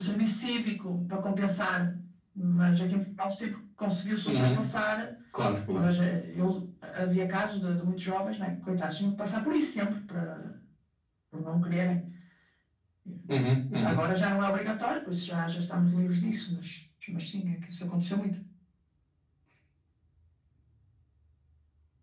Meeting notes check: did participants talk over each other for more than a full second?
No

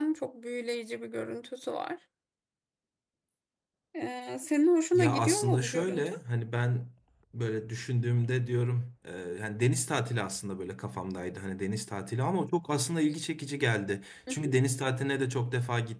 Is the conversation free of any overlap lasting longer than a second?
No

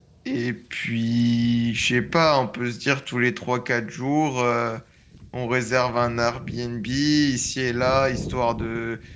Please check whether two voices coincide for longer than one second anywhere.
No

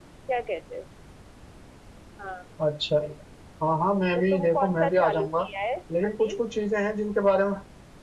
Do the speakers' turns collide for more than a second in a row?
Yes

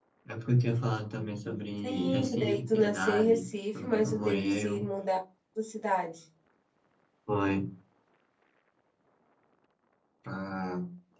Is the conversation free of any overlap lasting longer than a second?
No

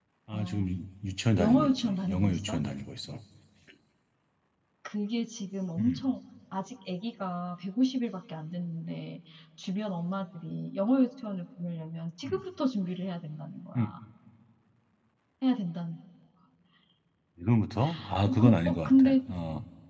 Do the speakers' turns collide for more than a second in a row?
Yes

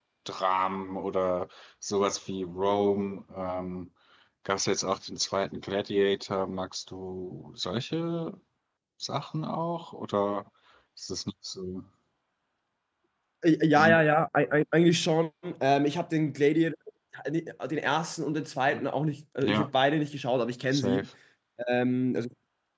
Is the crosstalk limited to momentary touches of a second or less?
Yes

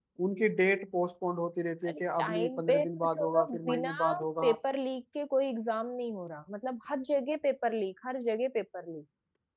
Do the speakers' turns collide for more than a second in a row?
Yes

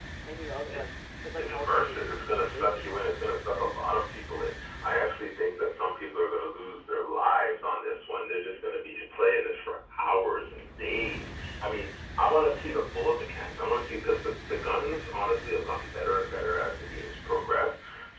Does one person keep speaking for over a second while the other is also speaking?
Yes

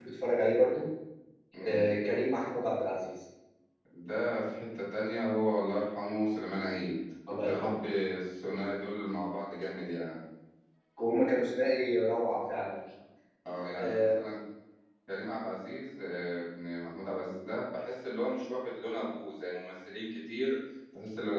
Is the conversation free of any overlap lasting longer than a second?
Yes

